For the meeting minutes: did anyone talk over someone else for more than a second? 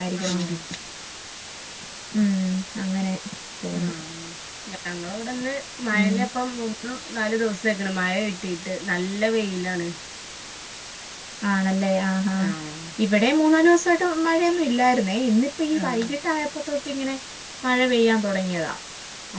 No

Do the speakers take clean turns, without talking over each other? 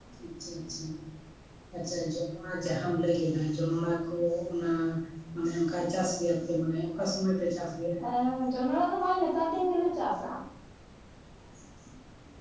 Yes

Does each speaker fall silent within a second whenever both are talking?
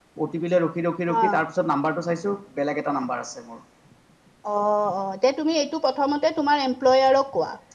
Yes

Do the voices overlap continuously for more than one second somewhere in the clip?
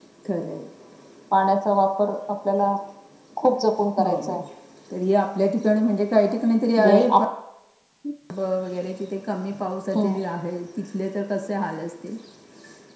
No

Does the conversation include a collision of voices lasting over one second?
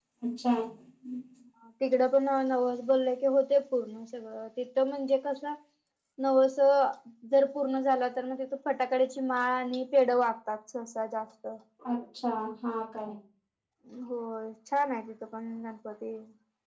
No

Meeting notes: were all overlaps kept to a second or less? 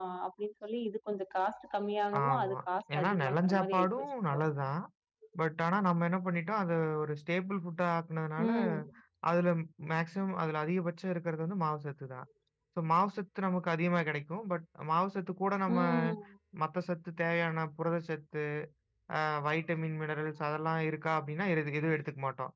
No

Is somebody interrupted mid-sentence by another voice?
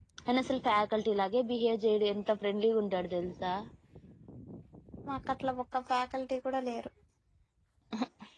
No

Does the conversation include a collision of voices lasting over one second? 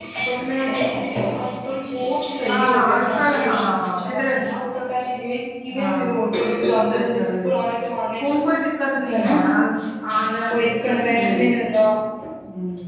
Yes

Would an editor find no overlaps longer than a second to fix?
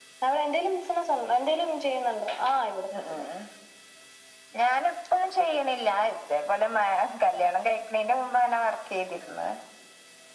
Yes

